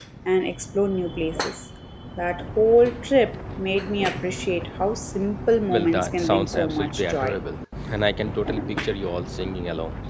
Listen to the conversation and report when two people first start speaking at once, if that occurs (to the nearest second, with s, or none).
6 s